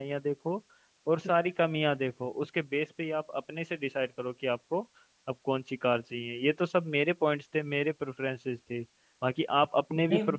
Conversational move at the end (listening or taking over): listening